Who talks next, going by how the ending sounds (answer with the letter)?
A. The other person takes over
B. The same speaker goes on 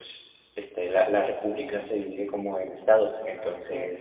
B